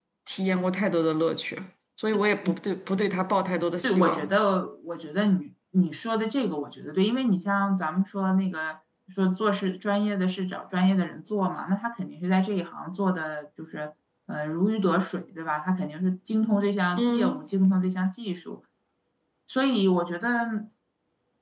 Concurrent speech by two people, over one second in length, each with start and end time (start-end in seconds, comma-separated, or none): none